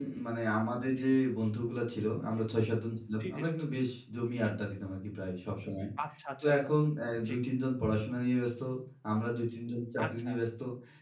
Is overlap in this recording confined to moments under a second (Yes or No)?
Yes